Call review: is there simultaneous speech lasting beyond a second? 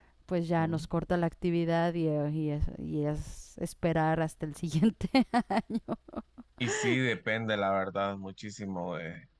No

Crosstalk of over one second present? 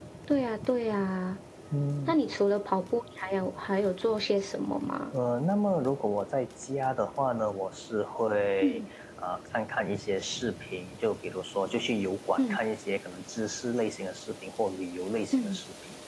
No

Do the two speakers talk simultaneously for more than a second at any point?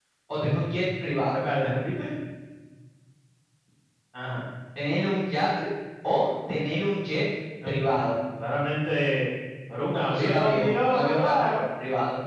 Yes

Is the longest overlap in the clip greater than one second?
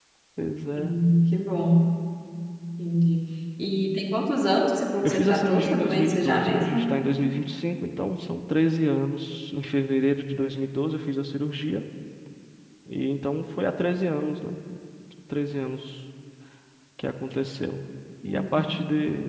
Yes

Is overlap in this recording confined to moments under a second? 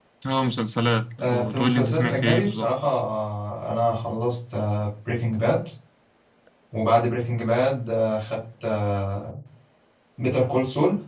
No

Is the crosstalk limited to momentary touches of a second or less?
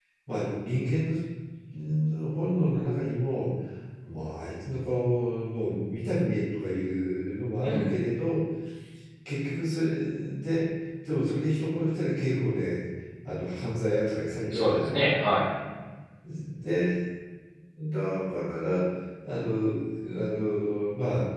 Yes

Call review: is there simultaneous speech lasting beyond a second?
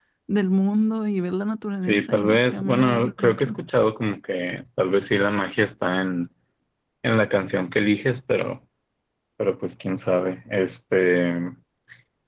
Yes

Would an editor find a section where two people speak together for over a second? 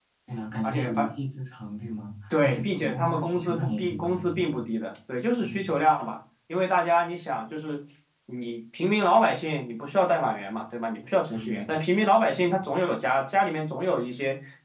Yes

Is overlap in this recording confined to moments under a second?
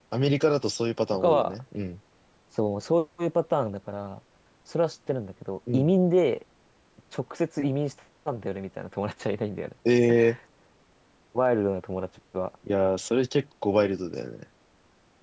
Yes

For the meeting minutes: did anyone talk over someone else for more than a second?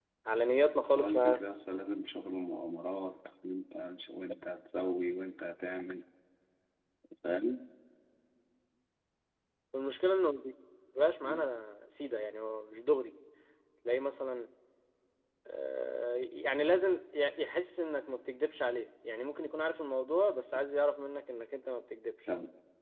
No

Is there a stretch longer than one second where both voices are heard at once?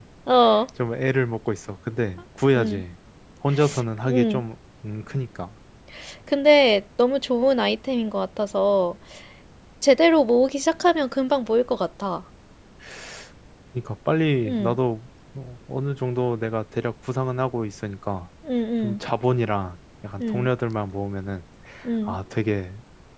No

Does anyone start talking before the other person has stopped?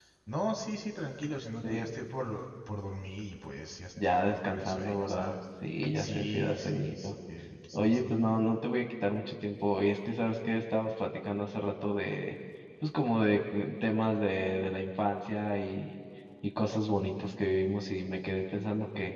Yes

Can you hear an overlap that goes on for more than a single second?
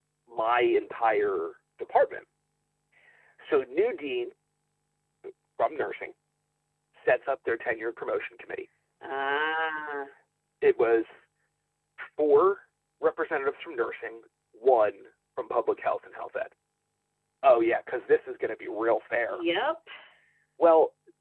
No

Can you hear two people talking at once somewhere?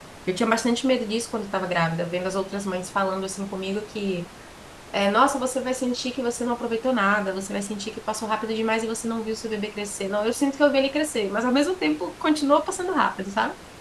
No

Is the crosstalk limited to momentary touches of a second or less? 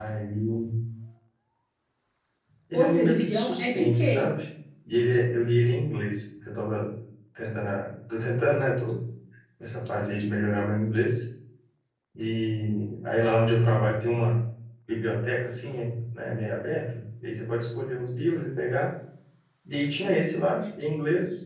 No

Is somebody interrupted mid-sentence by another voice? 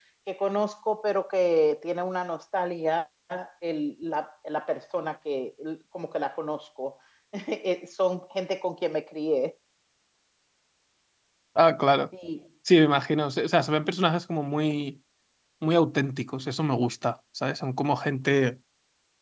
No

